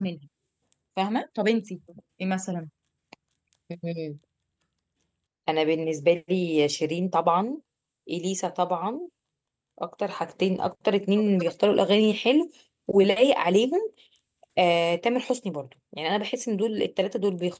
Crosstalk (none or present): none